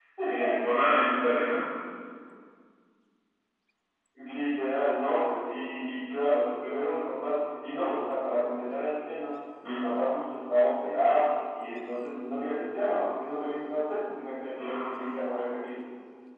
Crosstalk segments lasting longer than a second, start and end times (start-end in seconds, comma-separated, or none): none